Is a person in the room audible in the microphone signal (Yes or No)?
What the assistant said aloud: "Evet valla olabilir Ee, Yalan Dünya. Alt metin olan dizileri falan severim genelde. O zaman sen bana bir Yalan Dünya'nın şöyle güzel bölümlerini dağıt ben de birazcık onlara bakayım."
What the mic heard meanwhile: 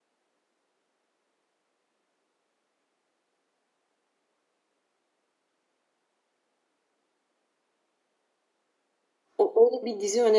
Yes